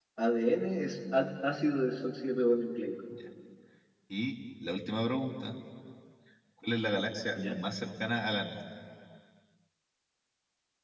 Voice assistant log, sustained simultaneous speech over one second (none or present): none